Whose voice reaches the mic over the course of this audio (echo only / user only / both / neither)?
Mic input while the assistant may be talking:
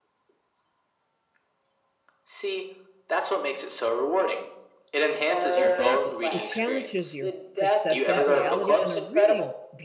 both